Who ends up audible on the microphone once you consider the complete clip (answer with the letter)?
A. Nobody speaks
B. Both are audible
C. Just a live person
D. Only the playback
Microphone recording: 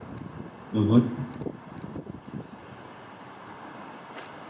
C